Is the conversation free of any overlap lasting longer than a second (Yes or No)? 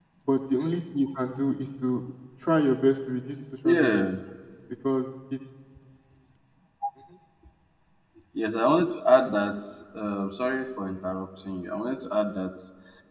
Yes